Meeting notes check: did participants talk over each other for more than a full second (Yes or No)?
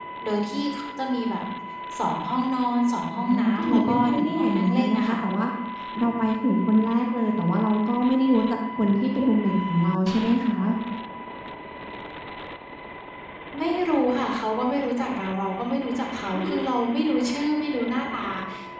Yes